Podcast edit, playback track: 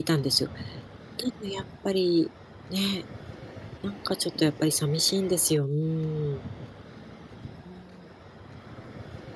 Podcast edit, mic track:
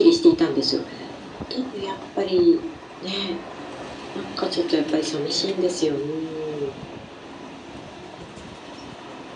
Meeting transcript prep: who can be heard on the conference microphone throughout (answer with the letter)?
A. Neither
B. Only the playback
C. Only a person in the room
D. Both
B